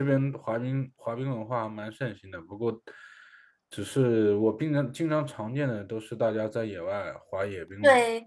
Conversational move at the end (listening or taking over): taking over